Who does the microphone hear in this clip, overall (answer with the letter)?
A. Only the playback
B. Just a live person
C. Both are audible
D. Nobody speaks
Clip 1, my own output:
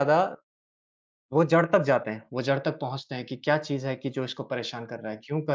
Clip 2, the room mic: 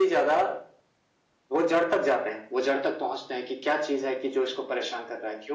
A